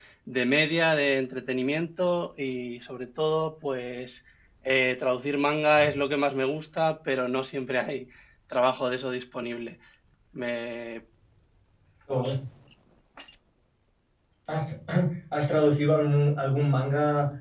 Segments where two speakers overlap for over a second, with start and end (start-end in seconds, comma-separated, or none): none